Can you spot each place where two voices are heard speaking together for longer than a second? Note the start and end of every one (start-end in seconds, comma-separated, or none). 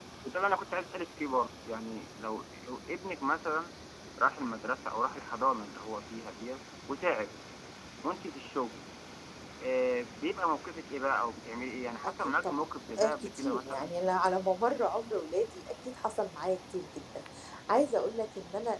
12.1-13.9